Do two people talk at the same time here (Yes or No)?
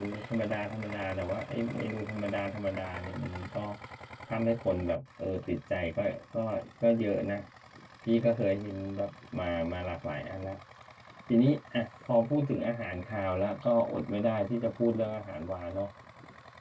No